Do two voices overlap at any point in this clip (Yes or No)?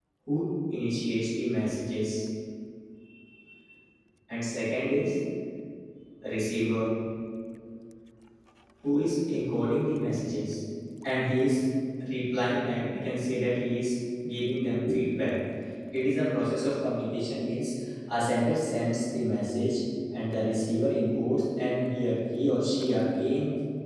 No